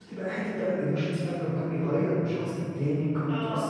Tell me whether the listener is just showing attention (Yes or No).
Yes